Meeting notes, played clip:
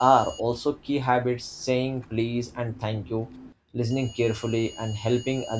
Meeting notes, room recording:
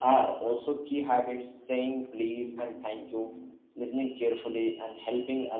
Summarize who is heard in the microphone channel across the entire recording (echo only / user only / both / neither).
echo only